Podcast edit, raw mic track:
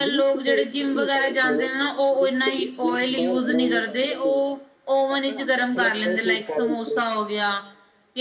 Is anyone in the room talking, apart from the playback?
Yes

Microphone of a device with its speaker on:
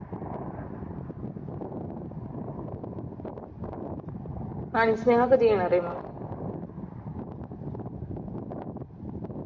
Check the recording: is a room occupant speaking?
Yes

